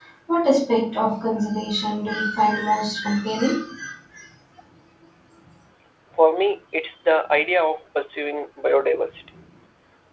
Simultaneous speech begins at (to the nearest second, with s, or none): none